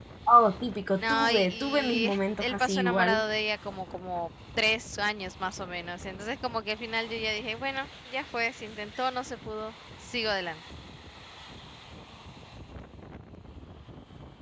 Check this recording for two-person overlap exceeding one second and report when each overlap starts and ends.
1.0-3.2

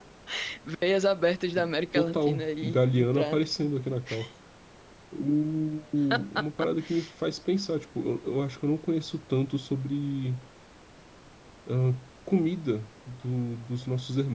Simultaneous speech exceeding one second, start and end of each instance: 1.9-3.7

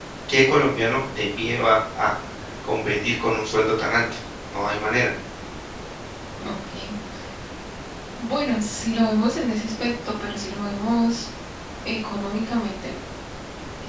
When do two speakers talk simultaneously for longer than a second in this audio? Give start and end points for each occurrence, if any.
none

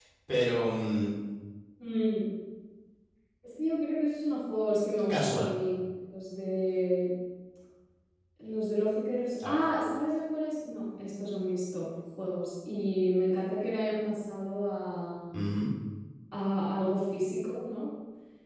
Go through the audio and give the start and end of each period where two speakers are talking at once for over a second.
none

